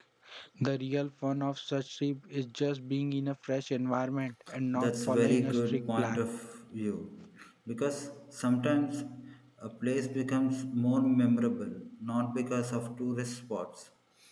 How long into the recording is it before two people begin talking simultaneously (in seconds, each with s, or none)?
4.8 s